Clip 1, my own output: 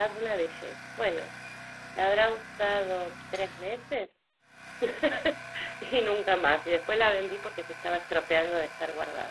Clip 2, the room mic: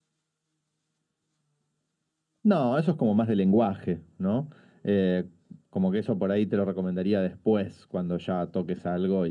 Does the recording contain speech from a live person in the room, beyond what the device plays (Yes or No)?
Yes